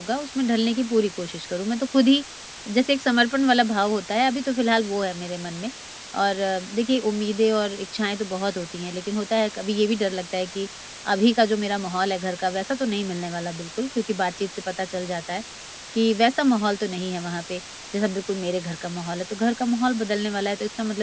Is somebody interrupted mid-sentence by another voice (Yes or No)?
No